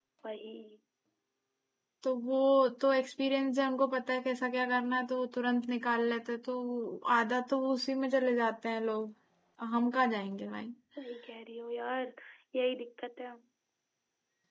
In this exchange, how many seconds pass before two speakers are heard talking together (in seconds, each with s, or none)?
none